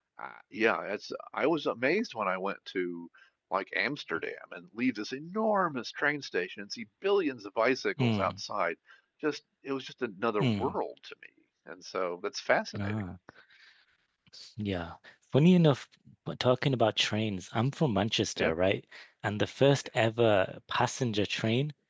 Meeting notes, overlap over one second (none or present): none